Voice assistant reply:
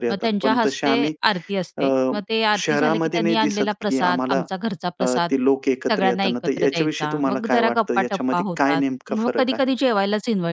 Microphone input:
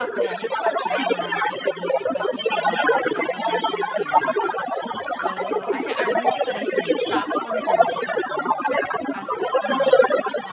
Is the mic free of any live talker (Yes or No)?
No